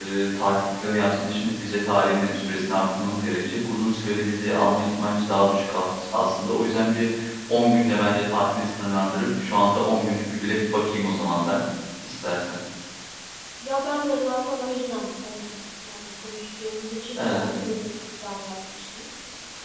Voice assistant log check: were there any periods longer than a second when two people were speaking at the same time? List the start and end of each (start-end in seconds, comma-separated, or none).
none